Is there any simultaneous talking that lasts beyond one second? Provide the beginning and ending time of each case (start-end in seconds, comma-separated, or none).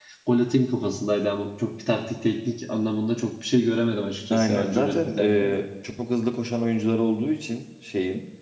4.3-5.6